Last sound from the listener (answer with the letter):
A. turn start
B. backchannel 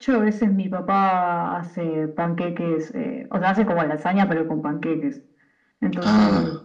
B